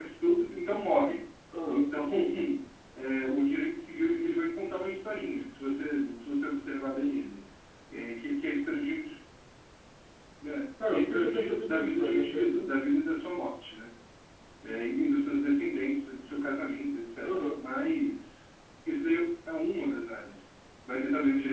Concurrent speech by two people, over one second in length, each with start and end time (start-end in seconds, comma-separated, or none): 10.9-12.8